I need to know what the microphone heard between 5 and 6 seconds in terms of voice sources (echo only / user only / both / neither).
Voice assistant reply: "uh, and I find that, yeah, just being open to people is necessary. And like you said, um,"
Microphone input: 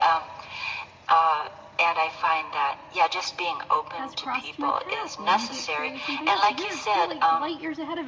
both